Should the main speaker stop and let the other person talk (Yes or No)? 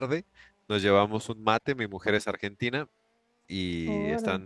No